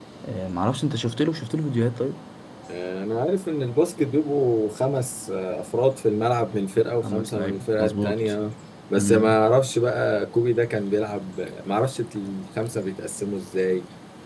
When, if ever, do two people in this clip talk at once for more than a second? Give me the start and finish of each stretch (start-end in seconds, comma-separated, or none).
7.0-8.3